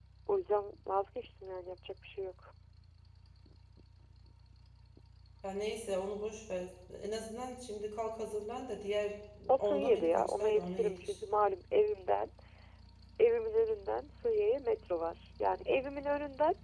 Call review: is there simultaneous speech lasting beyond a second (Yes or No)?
Yes